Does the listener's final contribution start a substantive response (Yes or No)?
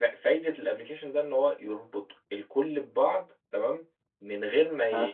No